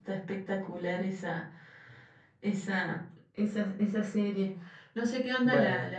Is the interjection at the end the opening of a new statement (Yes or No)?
No